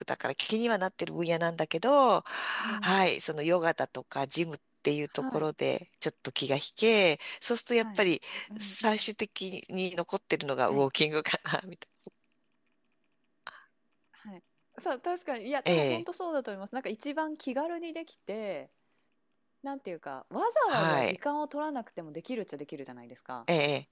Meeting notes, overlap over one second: none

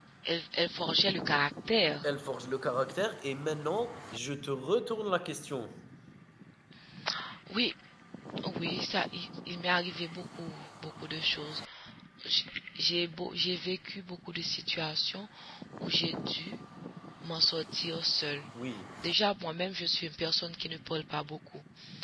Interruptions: none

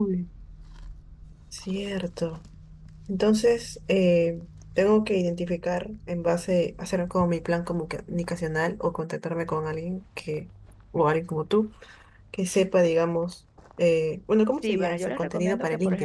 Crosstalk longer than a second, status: present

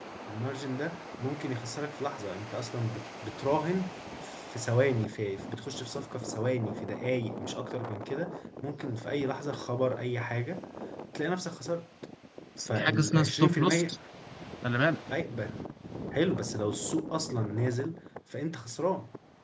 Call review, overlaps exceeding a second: present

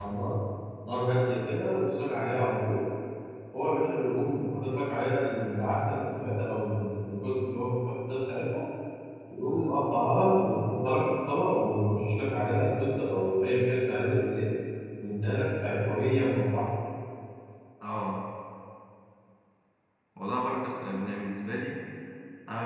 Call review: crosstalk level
none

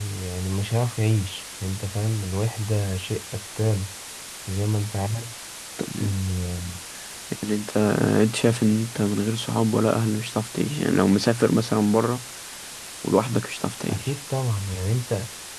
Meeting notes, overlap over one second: none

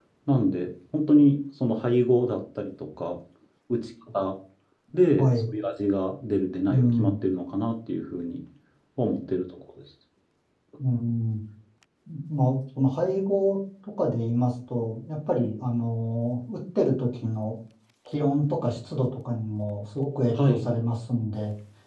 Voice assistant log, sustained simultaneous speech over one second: none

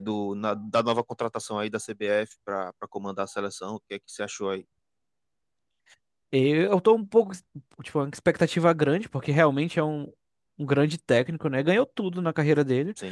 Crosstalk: none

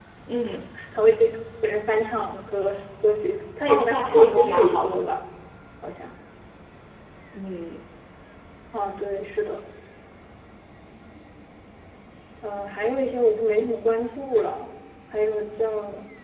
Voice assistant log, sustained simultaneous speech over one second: present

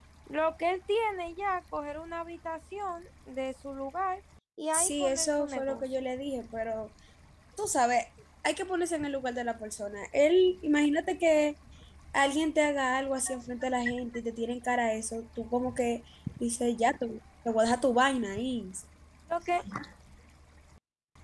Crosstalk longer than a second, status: present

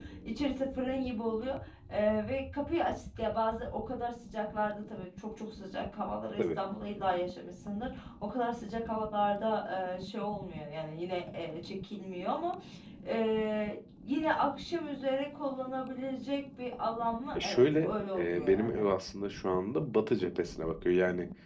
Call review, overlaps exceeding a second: present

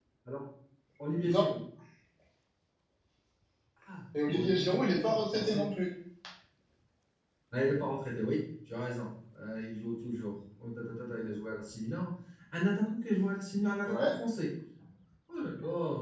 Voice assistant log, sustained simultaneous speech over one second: present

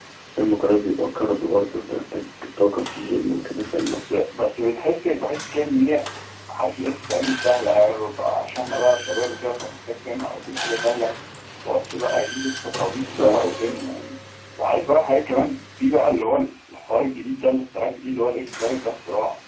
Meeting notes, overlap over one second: none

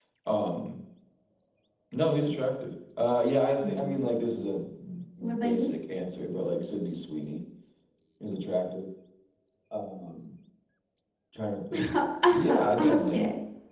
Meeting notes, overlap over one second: none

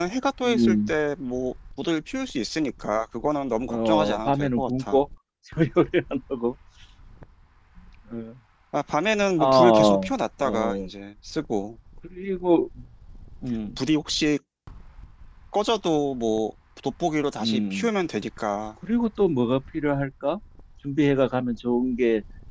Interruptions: present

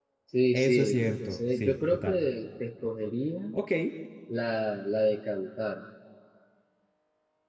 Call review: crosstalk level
present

